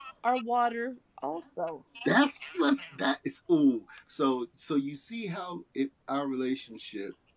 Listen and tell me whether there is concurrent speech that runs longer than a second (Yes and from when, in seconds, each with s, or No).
No